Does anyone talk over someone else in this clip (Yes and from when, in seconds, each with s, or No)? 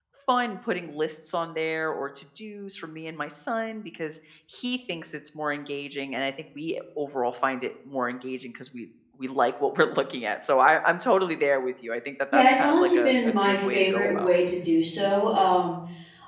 Yes, from 12.3 s